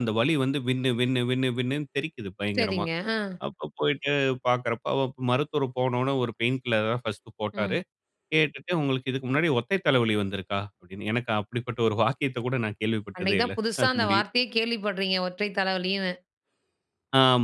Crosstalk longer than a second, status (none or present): none